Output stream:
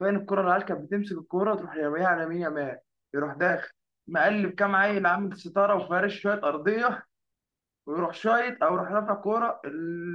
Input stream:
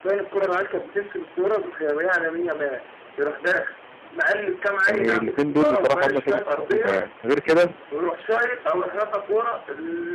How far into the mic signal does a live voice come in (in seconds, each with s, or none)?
4.9 s